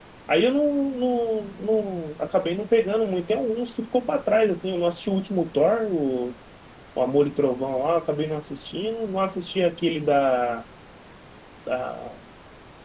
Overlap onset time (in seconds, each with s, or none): none